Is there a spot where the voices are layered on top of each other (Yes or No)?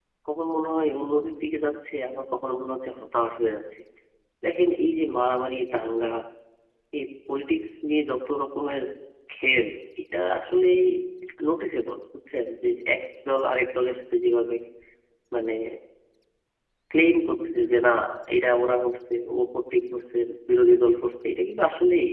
No